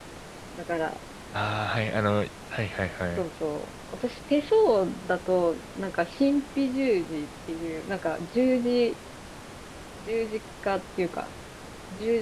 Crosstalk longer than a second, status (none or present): none